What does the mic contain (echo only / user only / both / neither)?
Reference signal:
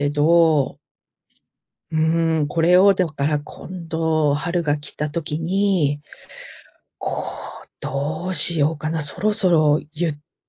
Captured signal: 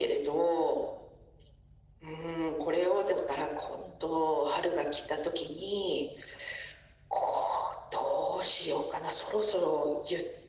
echo only